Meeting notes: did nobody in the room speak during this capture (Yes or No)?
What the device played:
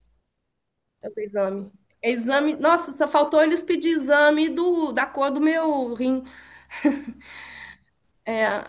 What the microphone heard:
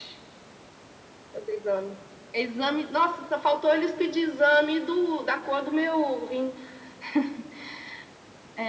Yes